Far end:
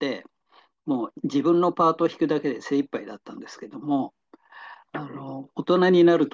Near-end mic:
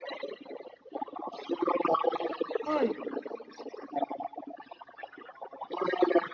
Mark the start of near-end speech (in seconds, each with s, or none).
2.6 s